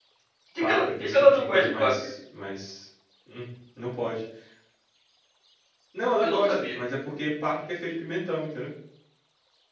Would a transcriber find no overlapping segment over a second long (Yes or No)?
No